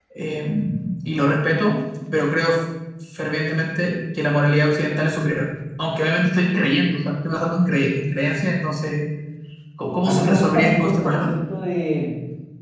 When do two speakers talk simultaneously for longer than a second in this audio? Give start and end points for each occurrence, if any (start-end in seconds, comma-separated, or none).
10.0-11.3